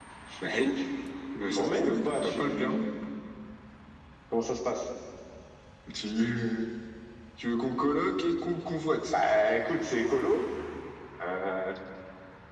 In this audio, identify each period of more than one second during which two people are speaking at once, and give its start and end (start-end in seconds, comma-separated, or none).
1.5-2.7